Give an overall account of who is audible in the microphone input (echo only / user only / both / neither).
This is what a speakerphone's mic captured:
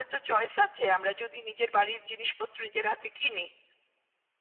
echo only